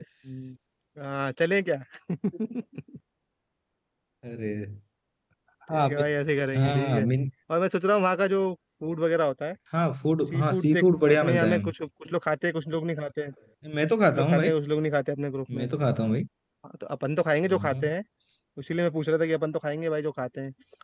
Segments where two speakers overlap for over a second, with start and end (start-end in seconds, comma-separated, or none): 10.3-11.6